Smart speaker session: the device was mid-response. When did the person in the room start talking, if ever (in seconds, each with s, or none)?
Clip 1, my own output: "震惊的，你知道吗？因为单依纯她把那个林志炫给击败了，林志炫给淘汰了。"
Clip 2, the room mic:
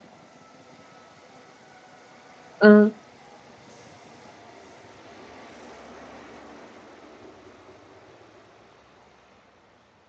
2.6 s